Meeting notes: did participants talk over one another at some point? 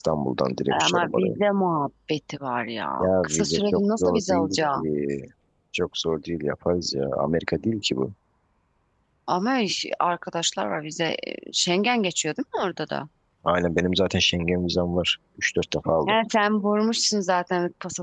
Yes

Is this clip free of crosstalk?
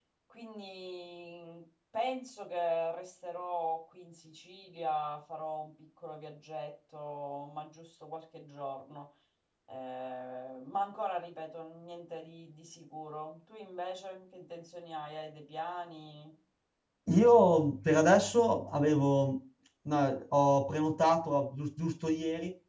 Yes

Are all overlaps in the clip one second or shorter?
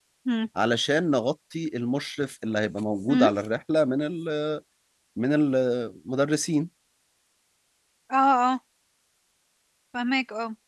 Yes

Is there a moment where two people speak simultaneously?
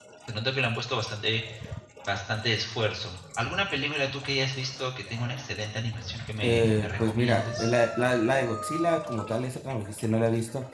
Yes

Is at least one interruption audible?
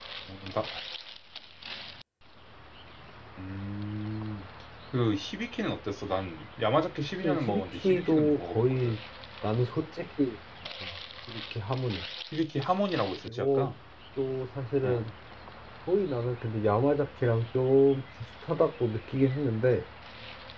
Yes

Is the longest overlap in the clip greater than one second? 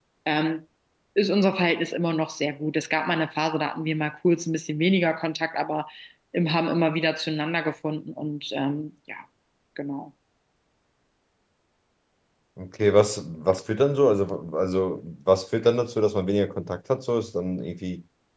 No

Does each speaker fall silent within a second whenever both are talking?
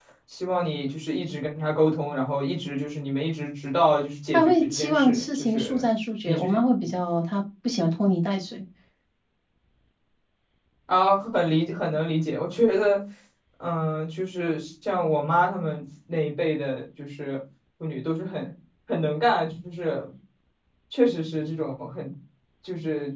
No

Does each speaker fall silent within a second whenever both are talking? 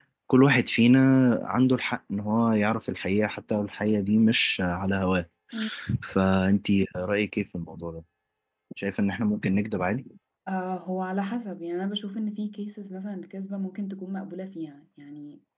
Yes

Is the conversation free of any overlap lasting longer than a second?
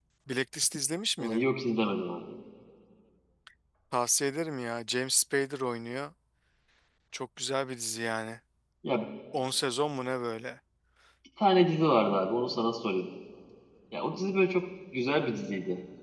Yes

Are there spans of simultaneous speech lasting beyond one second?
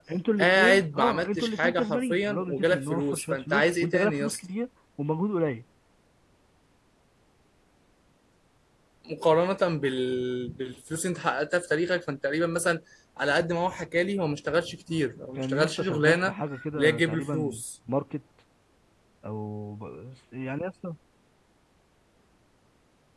Yes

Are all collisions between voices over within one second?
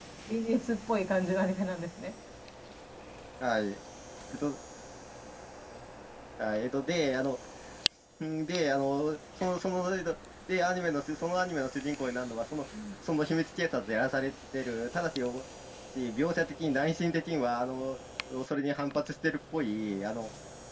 Yes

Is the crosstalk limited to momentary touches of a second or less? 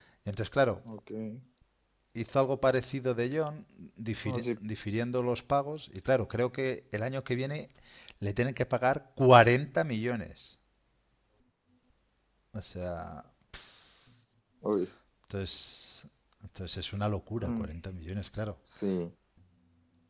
Yes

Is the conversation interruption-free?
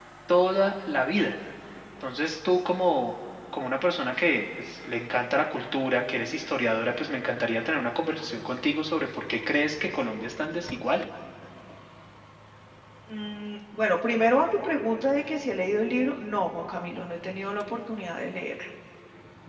Yes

